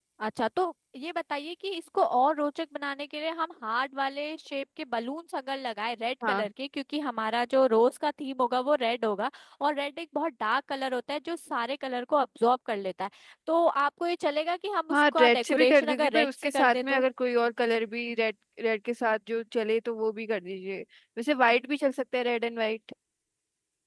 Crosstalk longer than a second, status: present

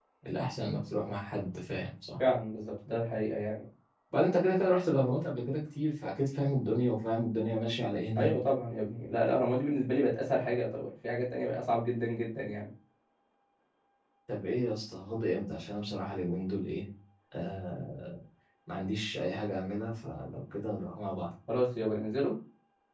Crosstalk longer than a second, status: none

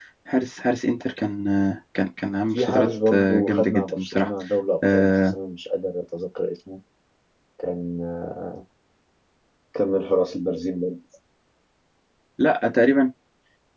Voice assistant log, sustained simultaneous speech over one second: present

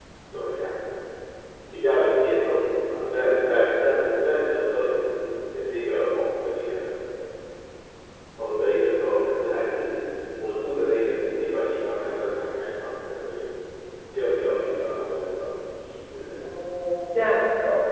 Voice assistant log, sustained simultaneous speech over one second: none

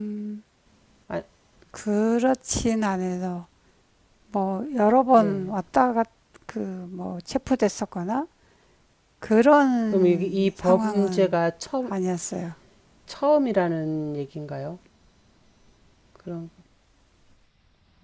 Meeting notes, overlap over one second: present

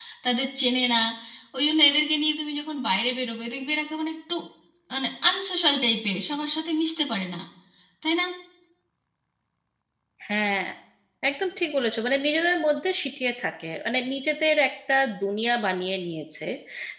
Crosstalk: none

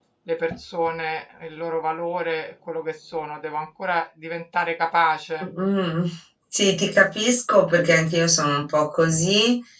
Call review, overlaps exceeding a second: none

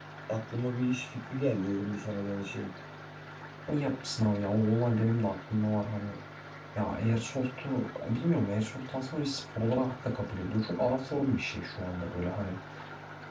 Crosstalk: none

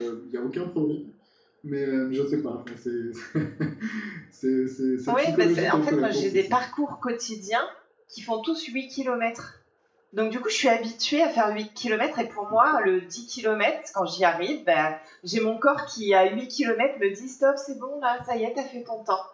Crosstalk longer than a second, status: present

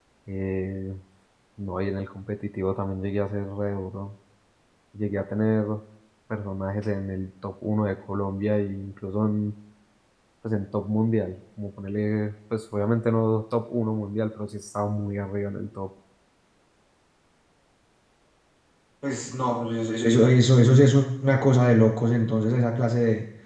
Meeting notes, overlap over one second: none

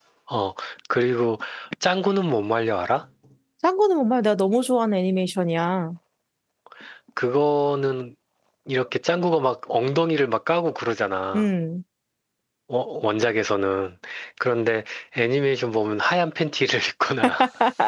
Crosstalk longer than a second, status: none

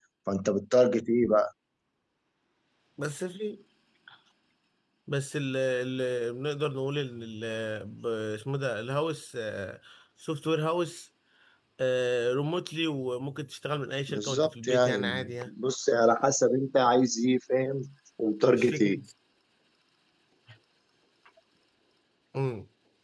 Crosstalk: present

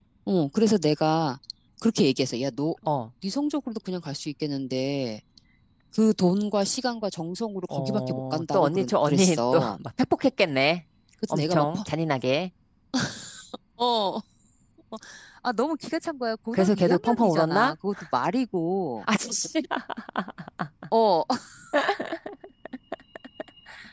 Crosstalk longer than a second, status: present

